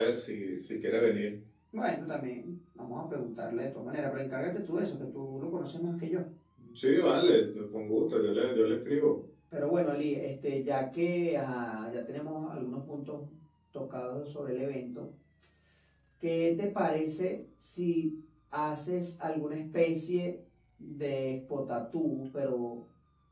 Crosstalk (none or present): none